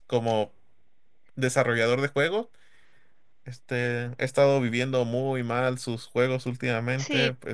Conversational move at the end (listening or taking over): taking over